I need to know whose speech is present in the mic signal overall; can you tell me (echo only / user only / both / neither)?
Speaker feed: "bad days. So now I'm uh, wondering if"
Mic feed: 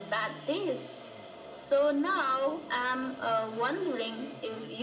echo only